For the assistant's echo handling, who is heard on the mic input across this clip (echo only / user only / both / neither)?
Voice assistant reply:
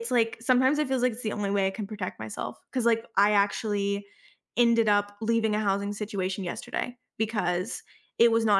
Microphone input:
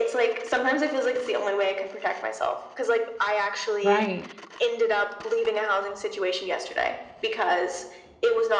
both